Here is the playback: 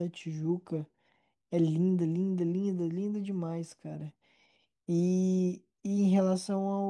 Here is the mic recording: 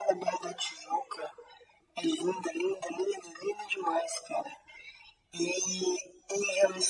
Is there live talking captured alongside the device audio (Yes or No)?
No